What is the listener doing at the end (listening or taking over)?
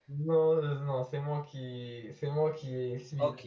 taking over